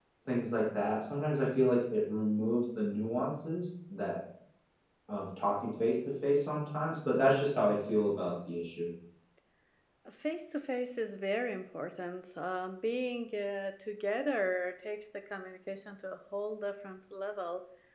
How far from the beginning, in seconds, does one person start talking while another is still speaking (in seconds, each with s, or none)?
none